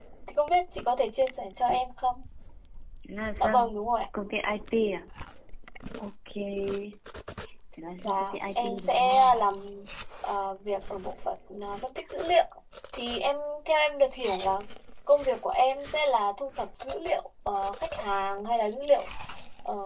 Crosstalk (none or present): present